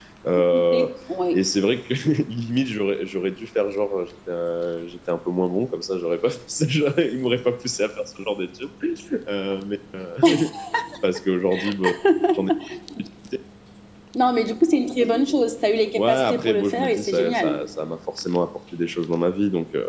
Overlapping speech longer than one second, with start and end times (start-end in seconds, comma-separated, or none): 16.0-17.5